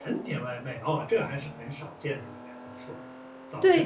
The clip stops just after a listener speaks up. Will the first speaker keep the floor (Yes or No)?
No